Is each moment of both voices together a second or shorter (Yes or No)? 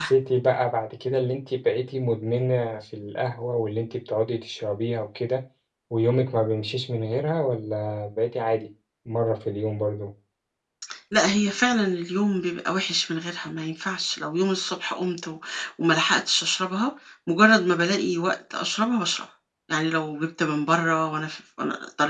Yes